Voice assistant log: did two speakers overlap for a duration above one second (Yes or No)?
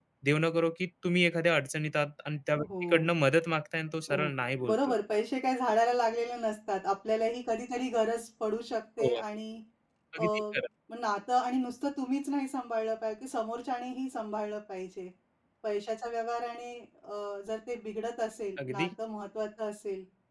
No